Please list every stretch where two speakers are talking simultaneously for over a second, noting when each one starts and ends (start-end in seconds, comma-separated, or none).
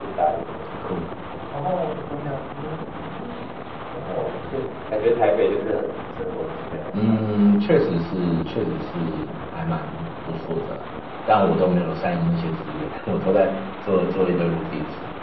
none